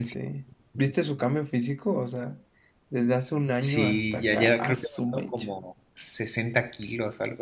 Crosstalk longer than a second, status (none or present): present